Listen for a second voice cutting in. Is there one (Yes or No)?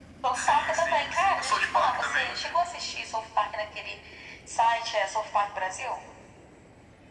Yes